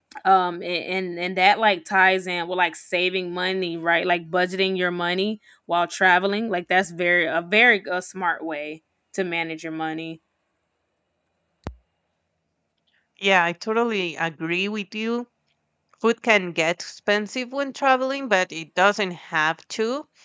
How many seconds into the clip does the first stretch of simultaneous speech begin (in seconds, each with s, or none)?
none